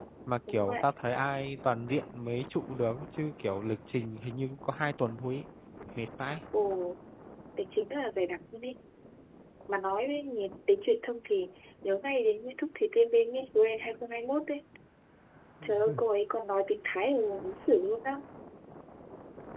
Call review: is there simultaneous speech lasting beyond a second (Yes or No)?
No